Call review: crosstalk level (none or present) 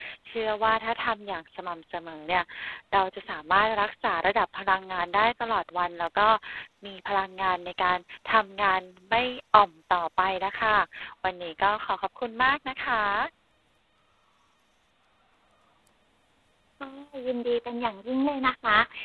none